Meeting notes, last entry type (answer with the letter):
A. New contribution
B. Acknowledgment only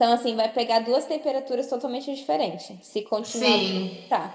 B